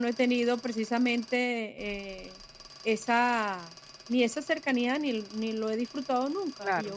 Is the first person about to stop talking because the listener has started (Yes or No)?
No